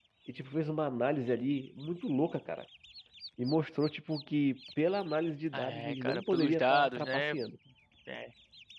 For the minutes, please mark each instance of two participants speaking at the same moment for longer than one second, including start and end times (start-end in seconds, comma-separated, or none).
5.5-7.2